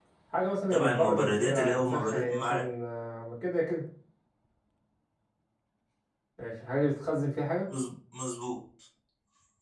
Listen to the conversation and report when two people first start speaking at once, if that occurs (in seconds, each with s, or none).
0.7 s